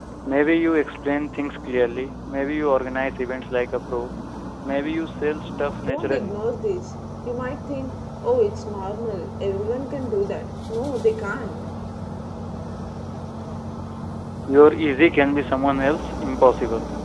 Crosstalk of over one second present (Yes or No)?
No